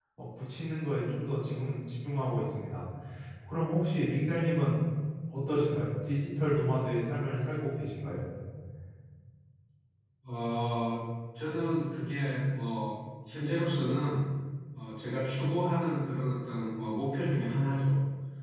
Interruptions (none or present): none